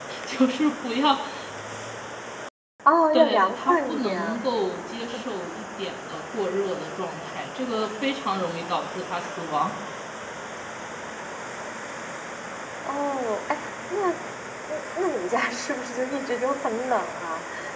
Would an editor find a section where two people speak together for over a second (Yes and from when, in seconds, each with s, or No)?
Yes, from 3.1 s